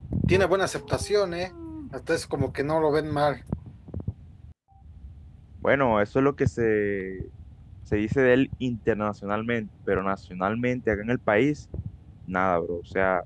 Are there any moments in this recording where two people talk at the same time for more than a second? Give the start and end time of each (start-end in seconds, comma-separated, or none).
none